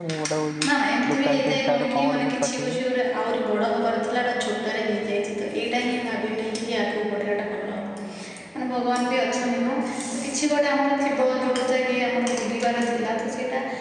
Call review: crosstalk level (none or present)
present